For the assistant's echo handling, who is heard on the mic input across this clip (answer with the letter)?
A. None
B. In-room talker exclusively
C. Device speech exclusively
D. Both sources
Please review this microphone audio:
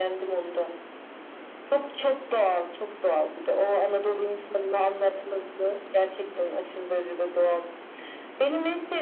C